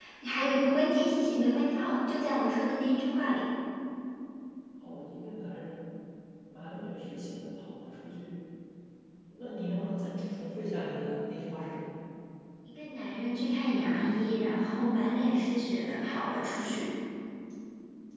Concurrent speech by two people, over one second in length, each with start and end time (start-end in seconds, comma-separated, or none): none